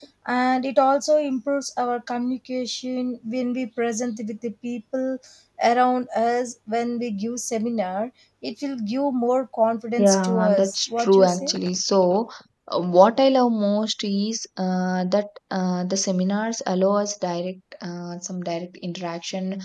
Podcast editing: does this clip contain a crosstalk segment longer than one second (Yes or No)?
Yes